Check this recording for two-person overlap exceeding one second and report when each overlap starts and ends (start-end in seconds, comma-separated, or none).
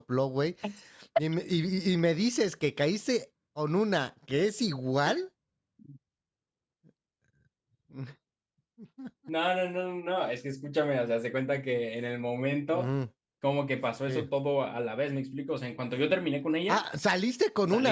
none